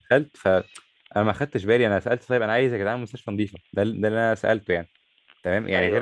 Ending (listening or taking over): listening